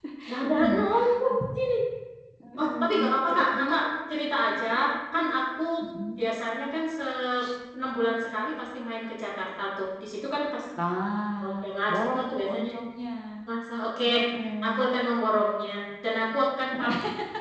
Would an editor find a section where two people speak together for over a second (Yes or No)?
Yes